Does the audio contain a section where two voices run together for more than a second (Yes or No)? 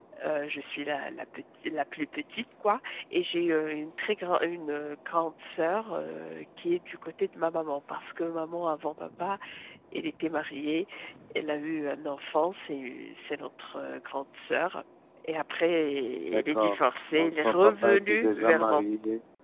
Yes